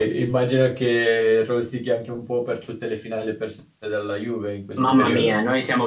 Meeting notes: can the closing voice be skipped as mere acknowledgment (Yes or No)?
No